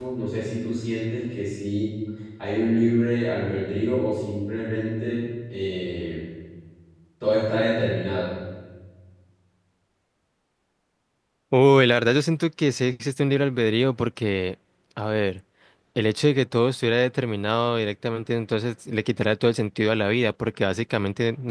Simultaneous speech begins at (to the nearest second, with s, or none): none